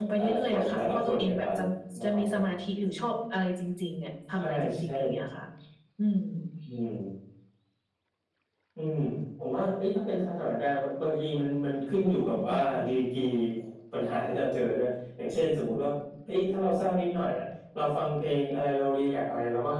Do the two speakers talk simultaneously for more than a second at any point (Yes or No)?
Yes